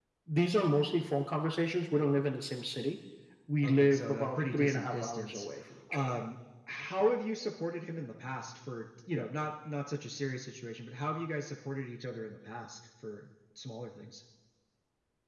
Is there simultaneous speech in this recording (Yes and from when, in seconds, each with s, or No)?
Yes, from 3.6 s